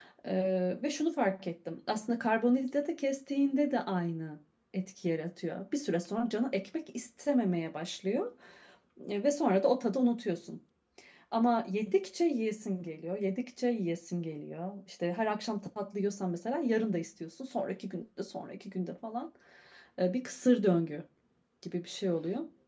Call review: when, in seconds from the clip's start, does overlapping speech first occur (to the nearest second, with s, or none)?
none